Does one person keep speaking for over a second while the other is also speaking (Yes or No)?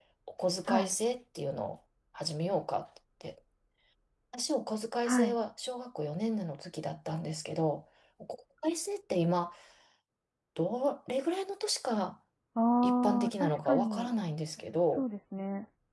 Yes